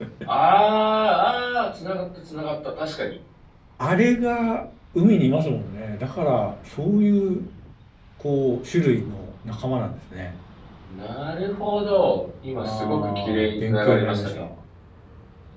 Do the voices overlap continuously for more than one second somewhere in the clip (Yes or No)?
Yes